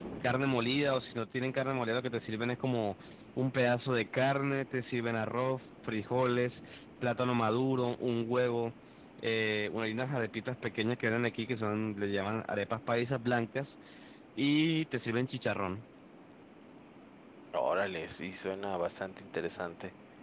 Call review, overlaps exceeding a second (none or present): none